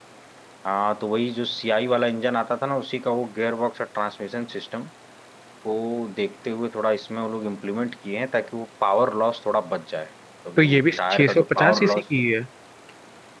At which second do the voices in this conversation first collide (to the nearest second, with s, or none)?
11 s